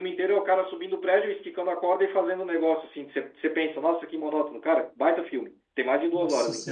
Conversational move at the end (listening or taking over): taking over